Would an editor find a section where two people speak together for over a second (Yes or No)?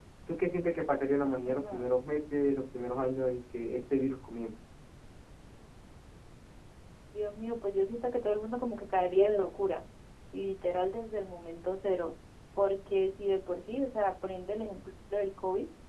No